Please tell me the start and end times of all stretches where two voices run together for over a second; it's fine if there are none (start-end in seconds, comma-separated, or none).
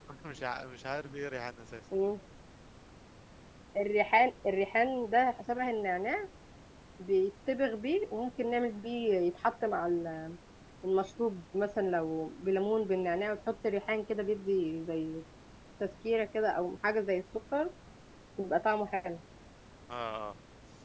none